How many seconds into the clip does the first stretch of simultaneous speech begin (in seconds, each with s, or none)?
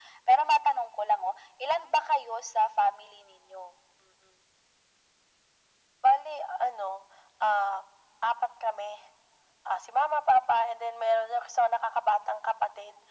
none